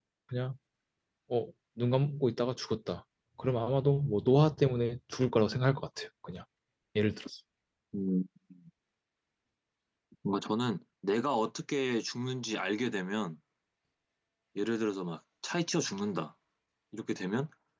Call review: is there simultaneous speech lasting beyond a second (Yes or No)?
No